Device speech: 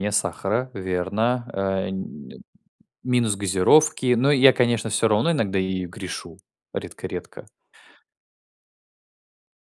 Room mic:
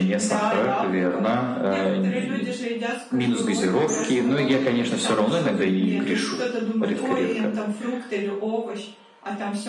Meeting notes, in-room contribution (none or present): present